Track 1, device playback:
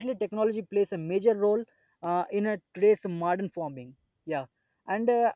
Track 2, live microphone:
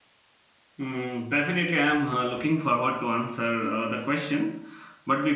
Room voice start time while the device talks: 0.8 s

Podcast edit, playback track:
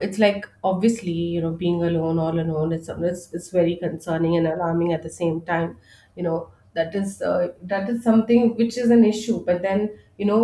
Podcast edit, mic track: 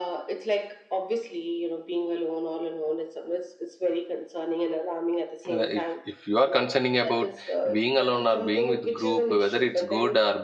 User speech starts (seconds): 5.5 s

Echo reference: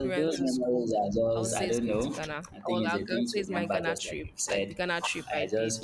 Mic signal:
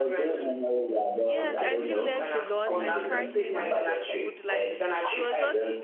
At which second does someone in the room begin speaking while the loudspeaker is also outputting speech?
1.2 s

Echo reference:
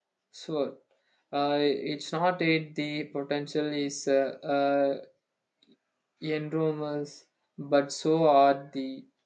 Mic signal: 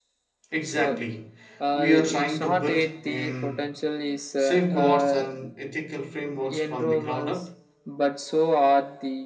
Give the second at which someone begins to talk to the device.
0.5 s

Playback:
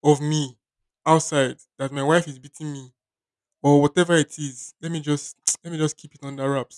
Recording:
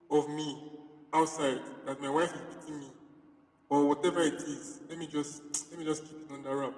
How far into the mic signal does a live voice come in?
none

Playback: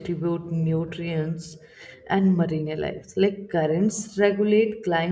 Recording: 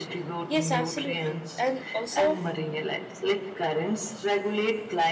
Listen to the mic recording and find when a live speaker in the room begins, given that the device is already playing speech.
0.5 s

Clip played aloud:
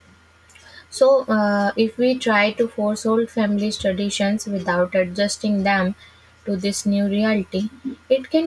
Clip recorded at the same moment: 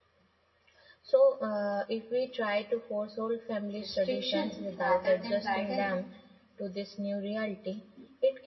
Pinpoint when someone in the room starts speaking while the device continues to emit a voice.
3.8 s

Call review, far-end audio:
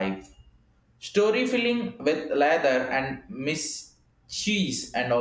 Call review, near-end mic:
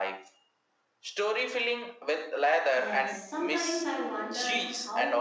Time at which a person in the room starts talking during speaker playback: 2.7 s

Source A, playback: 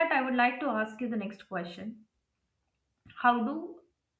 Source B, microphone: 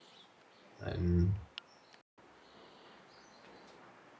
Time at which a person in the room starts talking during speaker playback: 0.8 s

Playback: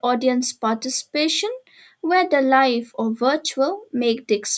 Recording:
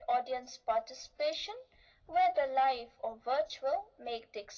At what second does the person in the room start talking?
none

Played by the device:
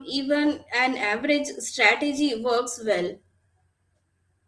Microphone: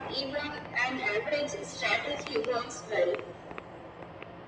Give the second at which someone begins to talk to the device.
none

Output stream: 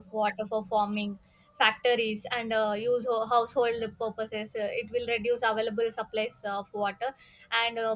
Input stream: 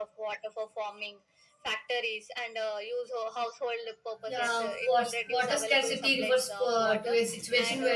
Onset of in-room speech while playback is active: 4.3 s

